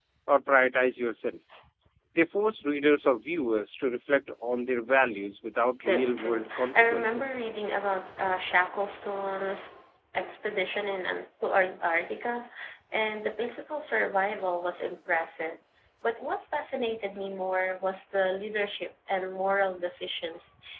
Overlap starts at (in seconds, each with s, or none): 5.8 s